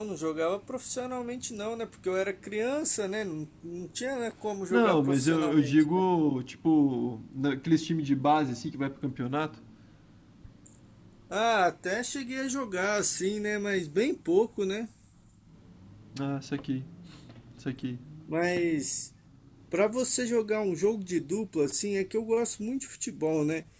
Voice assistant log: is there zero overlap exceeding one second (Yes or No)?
No